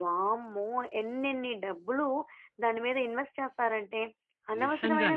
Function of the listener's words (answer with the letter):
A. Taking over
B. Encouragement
B